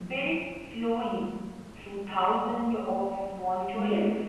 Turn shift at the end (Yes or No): Yes